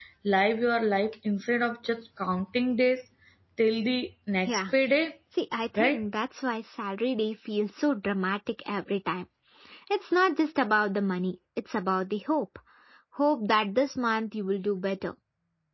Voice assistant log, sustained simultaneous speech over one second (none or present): none